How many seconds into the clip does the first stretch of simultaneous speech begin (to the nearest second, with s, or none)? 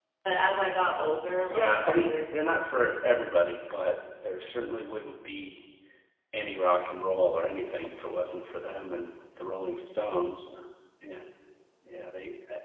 2 s